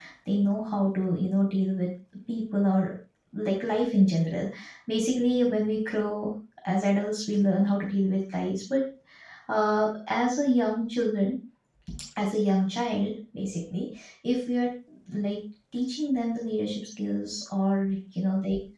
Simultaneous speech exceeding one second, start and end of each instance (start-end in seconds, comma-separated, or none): none